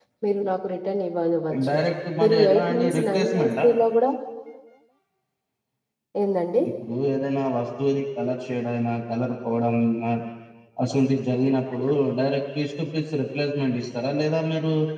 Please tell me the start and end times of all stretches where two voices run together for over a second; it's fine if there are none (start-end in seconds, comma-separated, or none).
2.2-3.6